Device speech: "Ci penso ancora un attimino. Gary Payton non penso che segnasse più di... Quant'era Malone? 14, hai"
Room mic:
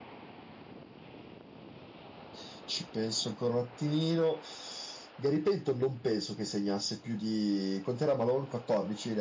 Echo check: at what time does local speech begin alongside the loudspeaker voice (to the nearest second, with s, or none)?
none